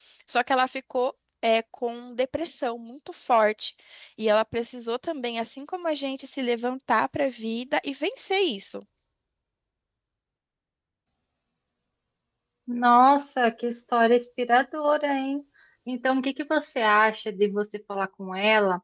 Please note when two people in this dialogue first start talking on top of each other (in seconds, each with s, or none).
none